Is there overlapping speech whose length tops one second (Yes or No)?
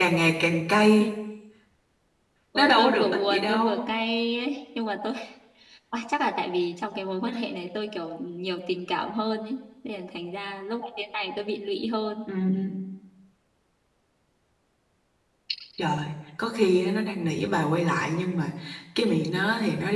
Yes